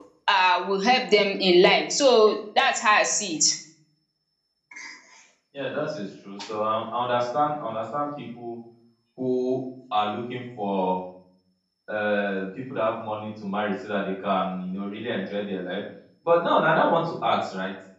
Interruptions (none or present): none